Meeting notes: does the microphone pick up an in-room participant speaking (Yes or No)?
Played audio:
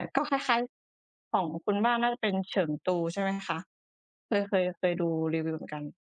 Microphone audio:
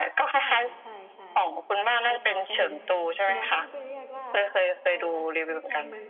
Yes